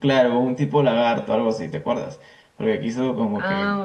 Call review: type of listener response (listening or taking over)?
taking over